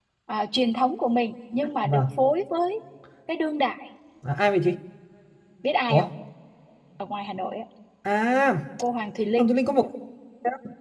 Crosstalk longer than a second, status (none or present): none